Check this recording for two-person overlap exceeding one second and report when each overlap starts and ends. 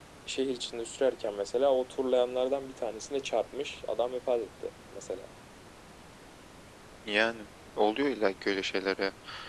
none

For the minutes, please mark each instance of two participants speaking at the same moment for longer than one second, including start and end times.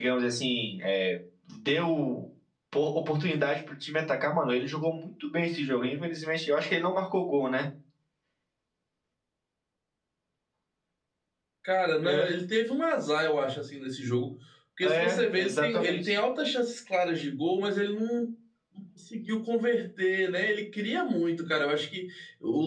14.8-16.2

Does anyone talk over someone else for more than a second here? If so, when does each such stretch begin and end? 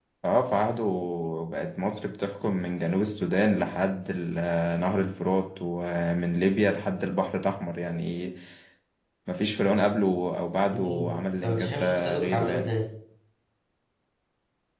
10.7-12.7

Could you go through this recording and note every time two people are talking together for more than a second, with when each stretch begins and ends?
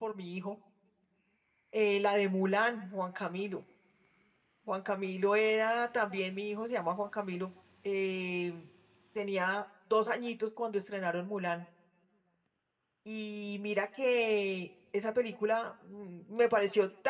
none

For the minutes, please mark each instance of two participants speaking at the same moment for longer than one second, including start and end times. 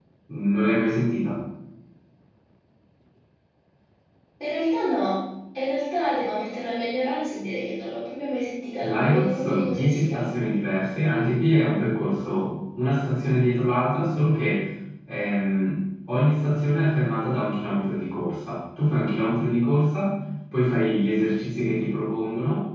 8.8-10.2

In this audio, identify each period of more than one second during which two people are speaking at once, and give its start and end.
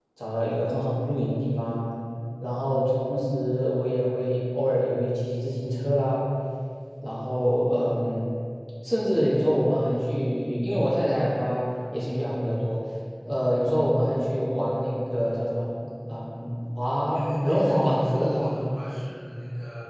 17.1-18.5

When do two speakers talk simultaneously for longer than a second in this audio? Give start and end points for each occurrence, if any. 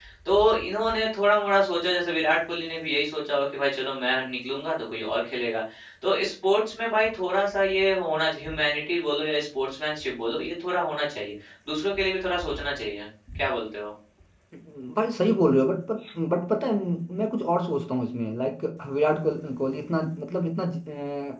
none

